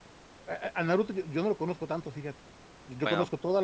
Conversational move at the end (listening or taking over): listening